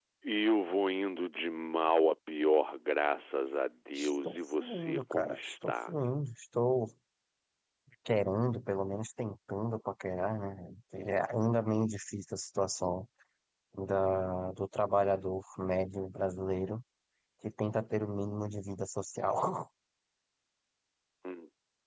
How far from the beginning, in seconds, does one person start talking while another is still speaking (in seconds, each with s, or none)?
4.0 s